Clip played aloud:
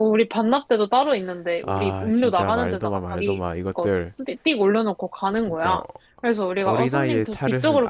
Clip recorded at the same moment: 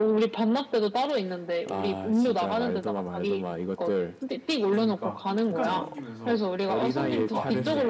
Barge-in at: 5 s

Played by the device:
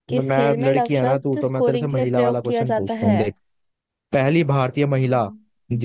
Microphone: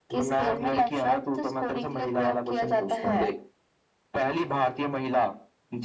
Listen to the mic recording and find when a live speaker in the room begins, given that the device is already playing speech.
0 s

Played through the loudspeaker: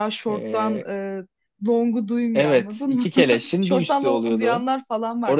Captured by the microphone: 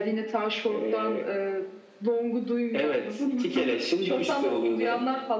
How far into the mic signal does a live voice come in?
none

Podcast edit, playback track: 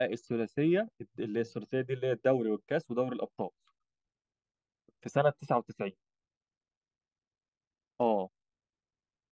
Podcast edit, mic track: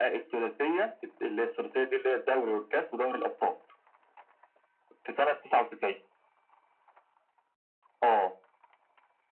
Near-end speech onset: none

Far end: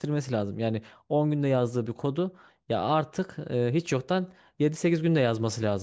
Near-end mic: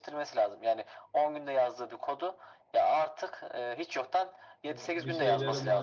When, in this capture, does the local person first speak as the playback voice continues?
5 s

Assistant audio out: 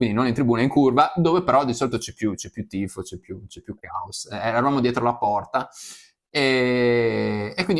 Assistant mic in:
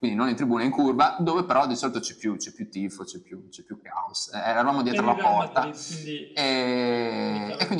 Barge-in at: 5 s

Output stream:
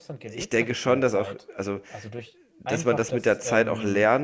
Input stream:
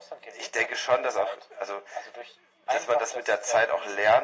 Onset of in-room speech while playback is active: none

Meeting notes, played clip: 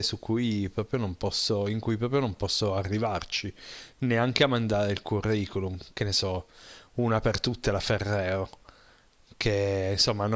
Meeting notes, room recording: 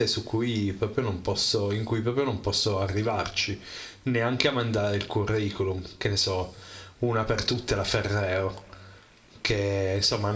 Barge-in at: none

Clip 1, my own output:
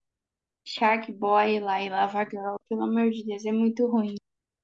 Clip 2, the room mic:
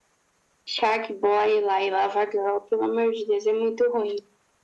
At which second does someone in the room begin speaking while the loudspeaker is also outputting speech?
none

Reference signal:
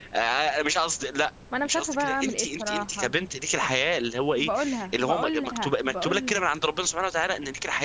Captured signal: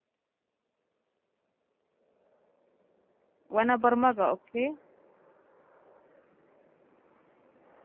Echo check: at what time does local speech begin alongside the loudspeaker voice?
4 s

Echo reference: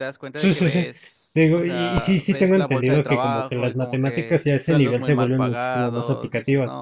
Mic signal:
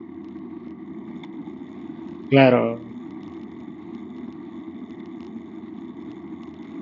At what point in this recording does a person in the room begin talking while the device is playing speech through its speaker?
2 s

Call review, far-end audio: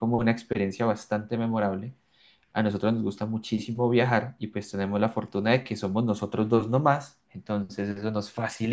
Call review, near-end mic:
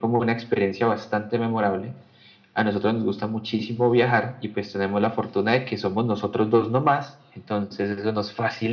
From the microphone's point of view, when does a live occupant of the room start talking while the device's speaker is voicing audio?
none

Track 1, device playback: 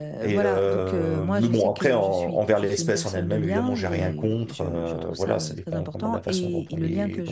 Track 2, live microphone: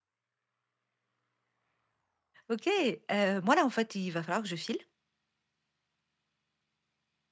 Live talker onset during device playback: 2 s

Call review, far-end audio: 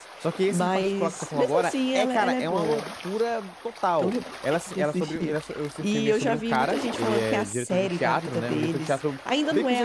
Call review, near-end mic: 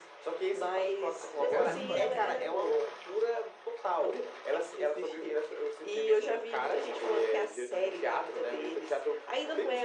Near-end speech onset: 1 s

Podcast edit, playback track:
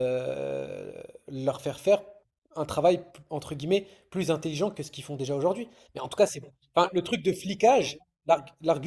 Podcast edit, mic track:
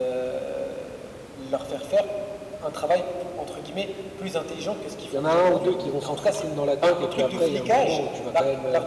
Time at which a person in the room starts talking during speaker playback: 5 s

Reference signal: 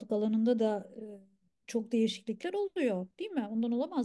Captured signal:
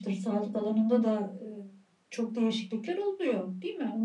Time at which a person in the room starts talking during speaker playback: none

